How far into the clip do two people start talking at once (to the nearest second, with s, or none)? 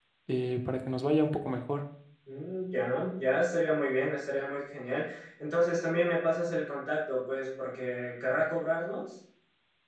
none